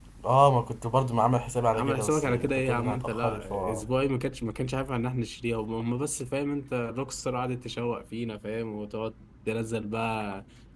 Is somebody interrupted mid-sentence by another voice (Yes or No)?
Yes